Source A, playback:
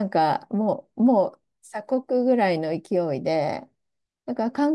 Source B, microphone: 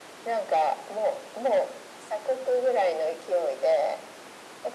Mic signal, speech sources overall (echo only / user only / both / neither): echo only